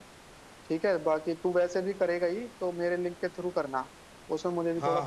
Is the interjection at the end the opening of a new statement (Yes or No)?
Yes